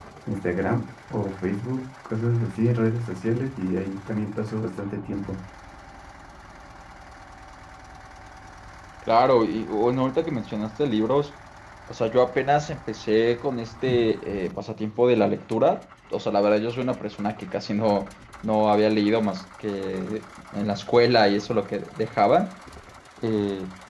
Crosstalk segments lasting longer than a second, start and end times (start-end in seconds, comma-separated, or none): none